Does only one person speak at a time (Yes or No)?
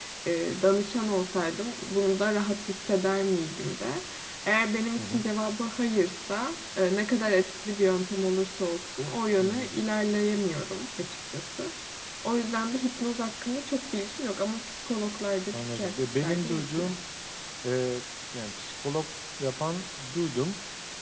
No